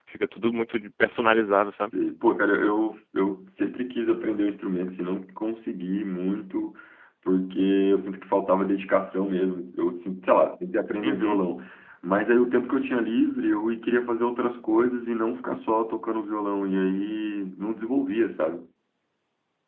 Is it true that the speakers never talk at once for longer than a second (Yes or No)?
Yes